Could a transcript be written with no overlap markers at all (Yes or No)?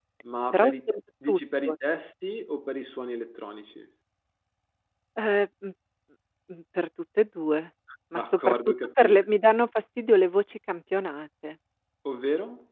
No